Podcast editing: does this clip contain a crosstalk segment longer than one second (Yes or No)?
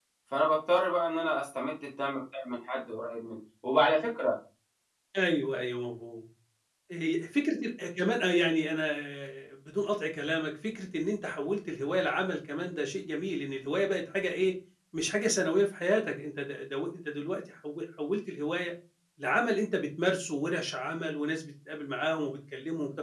No